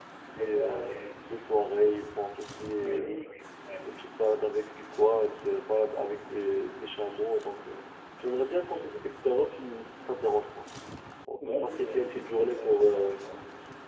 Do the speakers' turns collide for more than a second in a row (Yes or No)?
Yes